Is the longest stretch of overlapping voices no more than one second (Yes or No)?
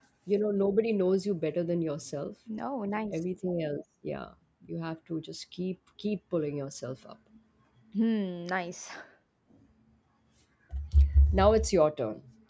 Yes